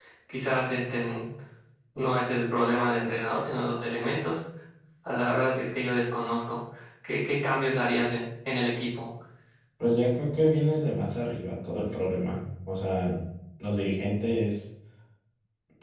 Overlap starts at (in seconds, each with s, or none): none